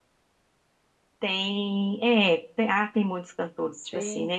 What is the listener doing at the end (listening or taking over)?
listening